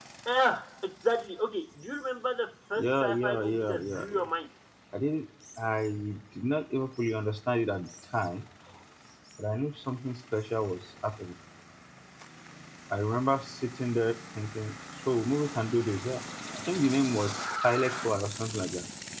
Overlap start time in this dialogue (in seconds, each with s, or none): 2.8 s